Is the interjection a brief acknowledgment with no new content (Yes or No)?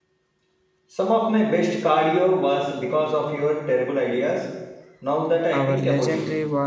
No